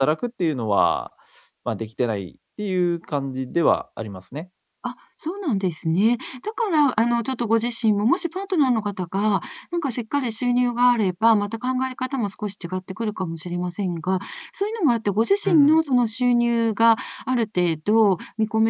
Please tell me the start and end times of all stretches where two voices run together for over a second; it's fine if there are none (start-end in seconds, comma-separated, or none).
none